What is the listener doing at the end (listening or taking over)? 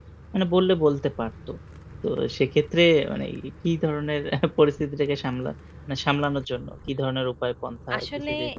taking over